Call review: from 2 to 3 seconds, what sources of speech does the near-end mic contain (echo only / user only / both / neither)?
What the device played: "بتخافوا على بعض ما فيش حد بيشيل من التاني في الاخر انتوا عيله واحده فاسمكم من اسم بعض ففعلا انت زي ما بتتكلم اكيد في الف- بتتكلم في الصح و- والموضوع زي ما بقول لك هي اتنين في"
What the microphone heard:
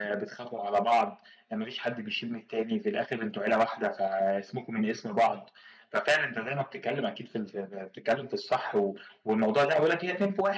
echo only